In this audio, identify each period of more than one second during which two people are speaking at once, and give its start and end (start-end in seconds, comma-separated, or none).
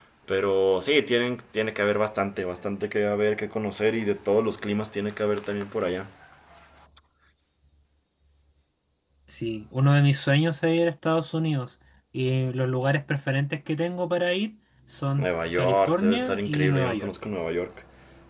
15.2-17.1